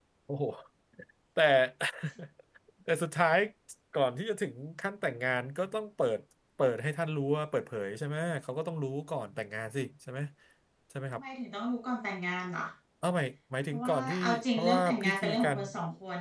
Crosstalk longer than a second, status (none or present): present